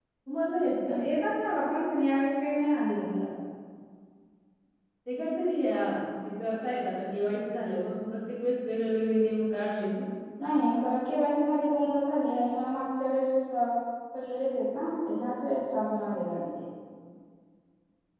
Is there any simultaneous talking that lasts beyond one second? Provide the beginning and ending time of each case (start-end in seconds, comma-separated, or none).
none